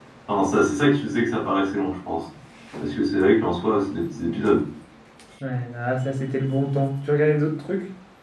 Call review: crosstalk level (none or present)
none